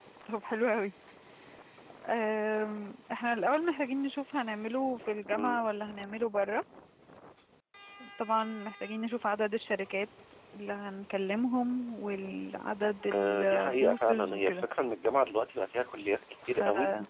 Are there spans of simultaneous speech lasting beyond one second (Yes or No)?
Yes